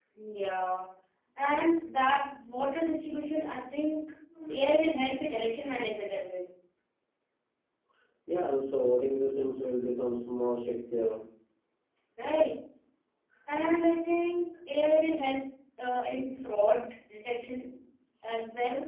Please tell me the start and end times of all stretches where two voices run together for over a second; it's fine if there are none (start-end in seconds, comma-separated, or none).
none